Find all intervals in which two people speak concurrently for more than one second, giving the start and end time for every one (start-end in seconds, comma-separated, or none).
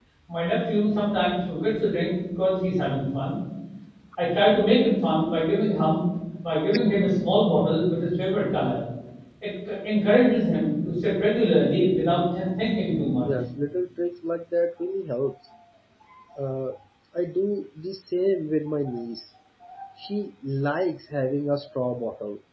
none